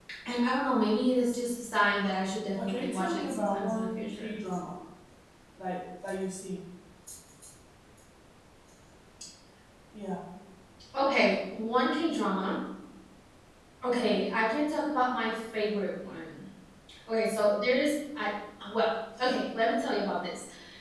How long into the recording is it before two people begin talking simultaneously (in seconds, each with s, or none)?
2.6 s